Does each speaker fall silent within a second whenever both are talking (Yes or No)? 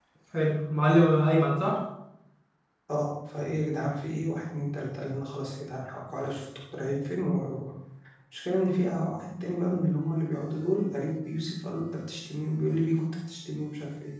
Yes